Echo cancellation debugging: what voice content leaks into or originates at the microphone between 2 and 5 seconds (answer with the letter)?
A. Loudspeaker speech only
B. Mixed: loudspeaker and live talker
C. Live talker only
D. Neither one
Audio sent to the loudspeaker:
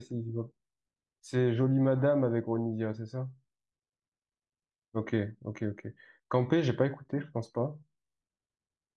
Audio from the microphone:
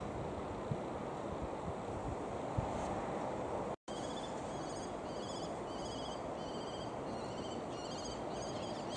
D